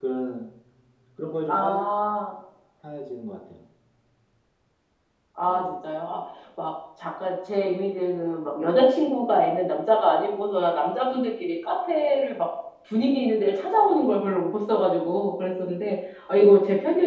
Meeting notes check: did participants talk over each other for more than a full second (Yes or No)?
No